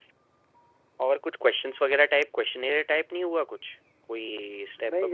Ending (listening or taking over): taking over